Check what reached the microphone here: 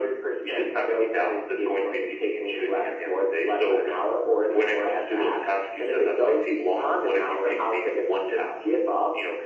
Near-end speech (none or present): none